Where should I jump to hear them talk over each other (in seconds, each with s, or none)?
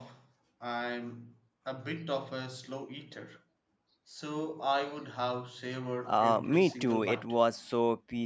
6.0 s